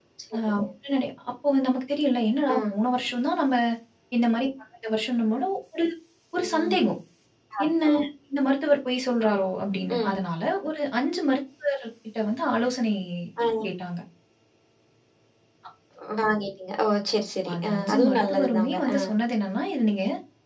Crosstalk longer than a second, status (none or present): present